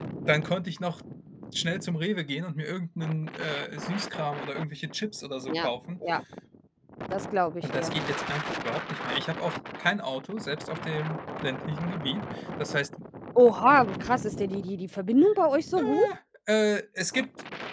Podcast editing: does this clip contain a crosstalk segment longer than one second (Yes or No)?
No